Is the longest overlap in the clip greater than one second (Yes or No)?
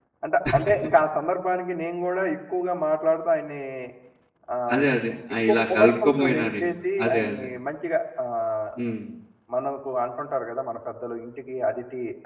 Yes